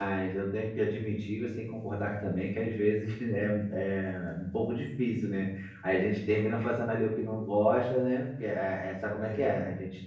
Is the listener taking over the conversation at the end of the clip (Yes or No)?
No